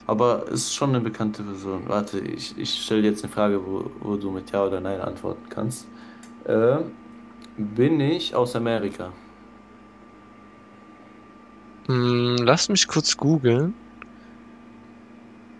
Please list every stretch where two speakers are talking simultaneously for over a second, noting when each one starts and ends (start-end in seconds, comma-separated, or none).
none